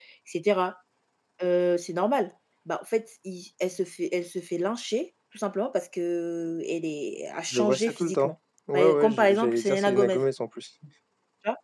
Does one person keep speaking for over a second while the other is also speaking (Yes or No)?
Yes